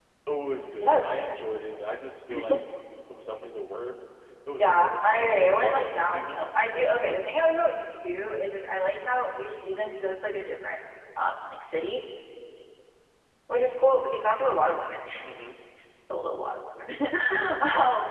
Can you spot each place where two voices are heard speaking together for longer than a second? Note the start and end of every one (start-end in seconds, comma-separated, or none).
4.6-6.5